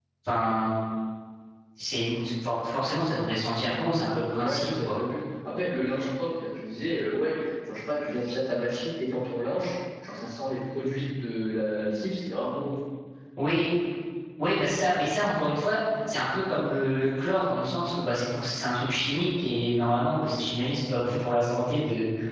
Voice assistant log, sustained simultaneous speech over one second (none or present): none